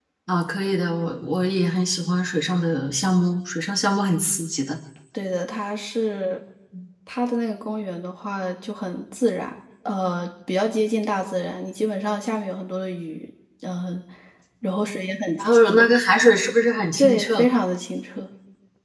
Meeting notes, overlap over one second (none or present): none